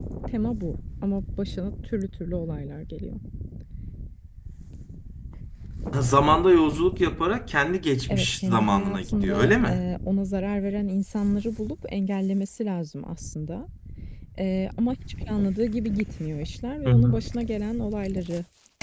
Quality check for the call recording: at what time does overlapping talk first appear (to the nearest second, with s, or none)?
8 s